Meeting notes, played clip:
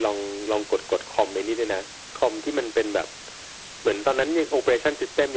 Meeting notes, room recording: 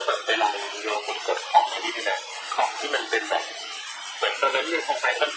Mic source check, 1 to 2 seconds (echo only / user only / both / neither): echo only